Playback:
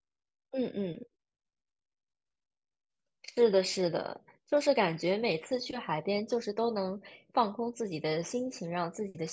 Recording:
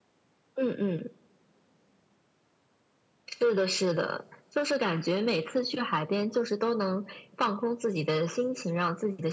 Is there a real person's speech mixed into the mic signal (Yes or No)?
No